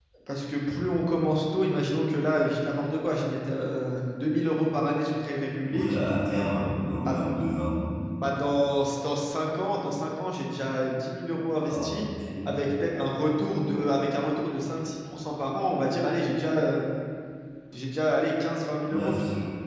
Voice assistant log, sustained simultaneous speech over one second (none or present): none